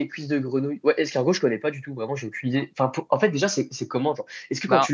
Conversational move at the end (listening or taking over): listening